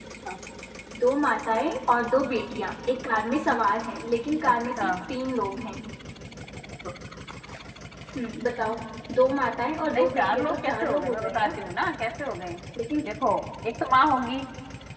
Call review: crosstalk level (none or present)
present